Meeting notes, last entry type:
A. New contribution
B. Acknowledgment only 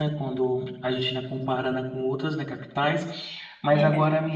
B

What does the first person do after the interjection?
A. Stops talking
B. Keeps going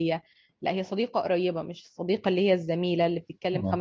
B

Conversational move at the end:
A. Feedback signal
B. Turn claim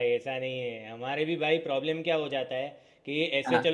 A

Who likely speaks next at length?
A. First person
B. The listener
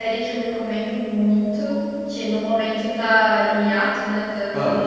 A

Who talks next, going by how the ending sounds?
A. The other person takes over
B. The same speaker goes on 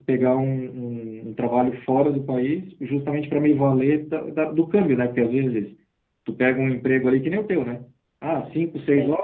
B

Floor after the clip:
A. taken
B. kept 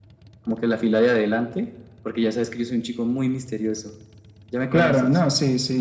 A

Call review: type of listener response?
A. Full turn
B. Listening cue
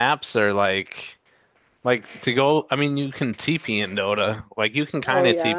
A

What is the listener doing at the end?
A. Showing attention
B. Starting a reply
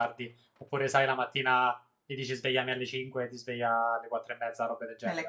B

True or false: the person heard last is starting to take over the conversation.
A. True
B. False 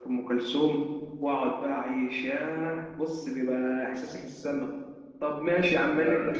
B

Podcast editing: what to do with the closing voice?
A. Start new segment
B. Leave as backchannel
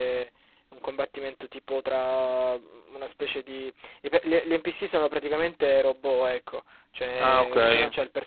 B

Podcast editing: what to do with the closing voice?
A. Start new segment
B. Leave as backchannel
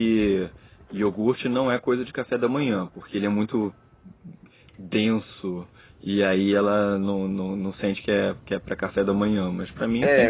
A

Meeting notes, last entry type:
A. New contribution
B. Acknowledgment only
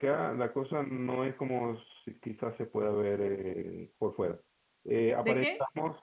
B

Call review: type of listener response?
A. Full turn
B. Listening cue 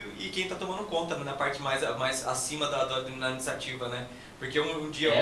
B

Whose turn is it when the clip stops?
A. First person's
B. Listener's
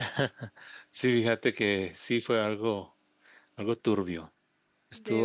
A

